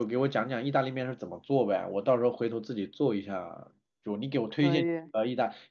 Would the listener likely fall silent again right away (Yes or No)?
Yes